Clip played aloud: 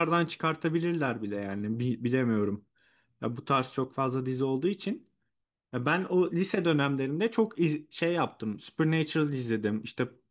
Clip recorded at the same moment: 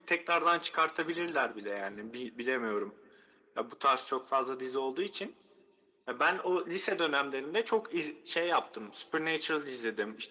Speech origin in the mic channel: echo only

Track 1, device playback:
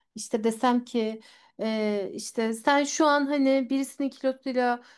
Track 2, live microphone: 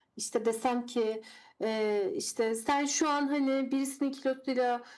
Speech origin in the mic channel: echo only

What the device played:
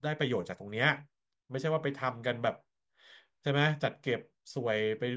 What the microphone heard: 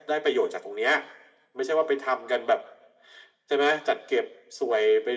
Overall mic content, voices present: echo only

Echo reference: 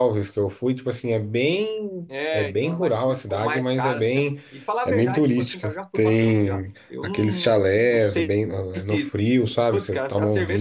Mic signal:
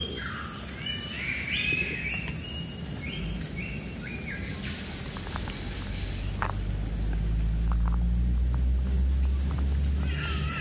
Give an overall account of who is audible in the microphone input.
neither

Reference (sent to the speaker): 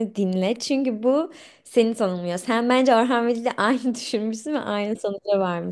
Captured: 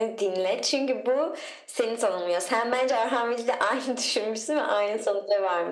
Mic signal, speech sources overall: echo only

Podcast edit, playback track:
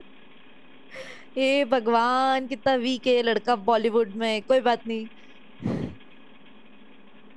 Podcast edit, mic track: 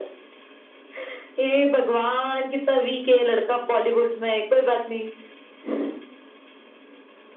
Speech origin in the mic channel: echo only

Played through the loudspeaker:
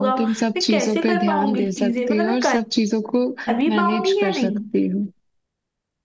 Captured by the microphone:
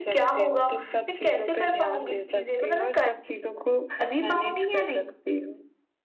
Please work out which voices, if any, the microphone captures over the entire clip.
echo only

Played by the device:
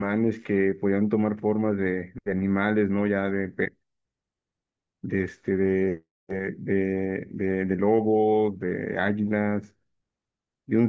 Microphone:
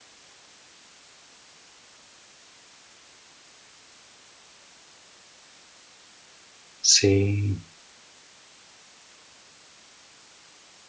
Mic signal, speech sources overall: user only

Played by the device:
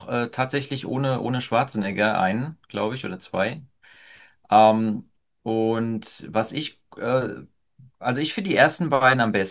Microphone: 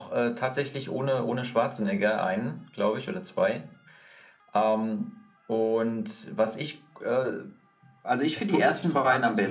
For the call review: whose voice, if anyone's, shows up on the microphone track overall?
both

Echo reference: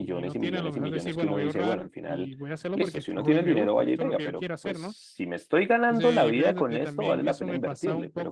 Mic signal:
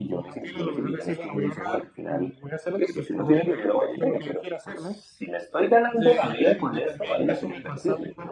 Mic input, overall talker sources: echo only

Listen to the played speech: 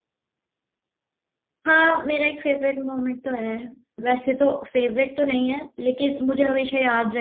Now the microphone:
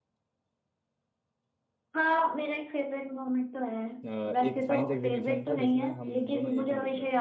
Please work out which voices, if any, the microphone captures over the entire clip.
both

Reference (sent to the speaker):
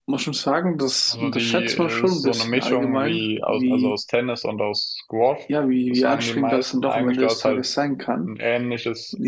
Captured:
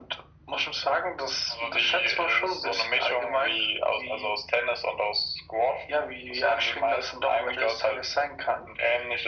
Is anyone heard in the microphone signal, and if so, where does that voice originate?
echo only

